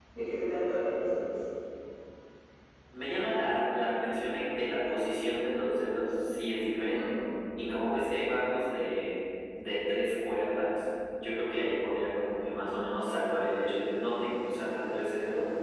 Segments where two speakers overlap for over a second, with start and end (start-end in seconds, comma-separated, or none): none